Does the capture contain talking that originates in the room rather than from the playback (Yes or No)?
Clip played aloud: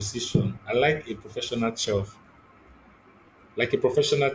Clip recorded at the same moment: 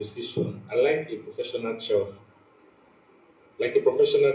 No